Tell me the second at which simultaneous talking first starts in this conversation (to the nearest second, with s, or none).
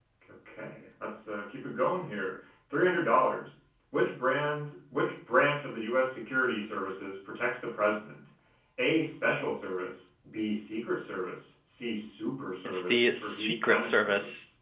13 s